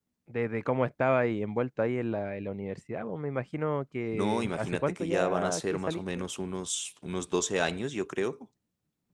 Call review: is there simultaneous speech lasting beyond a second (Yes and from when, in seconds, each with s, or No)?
Yes, from 4.1 s